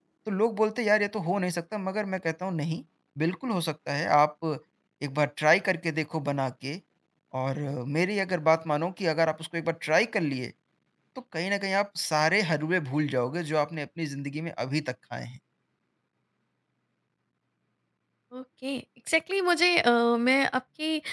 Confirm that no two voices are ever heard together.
Yes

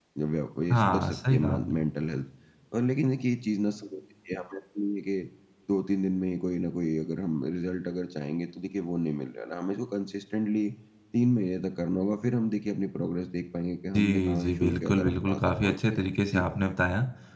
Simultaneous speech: Yes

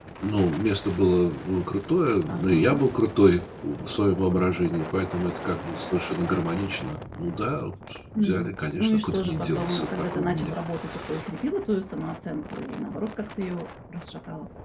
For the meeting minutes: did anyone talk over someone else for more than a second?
Yes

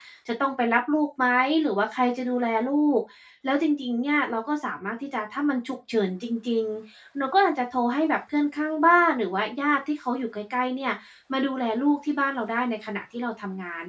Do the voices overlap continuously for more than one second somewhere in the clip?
No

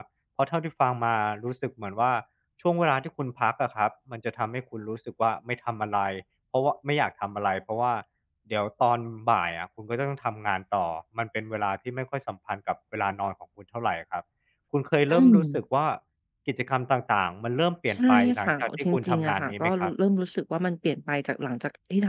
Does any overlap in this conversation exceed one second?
Yes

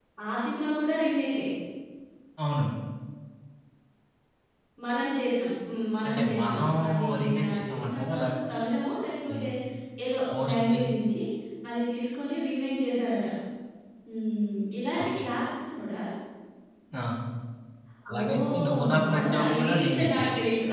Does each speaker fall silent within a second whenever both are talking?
No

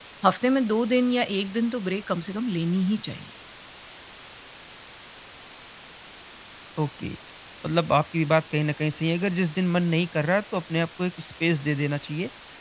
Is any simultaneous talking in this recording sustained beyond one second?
No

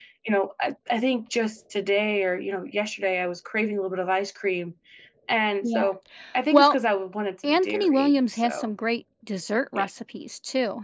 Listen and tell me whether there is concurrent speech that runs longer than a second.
Yes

